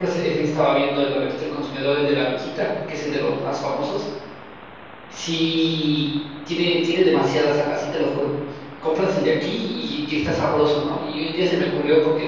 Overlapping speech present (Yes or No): No